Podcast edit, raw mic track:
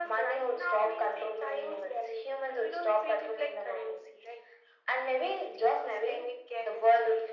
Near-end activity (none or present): none